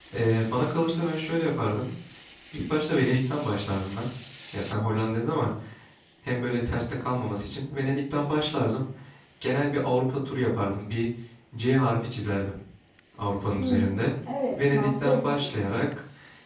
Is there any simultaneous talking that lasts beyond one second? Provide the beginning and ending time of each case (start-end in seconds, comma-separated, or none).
14.5-15.7